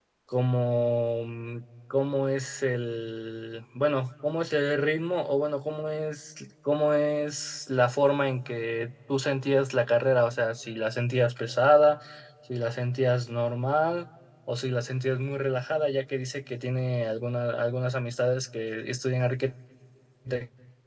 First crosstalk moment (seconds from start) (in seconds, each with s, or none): none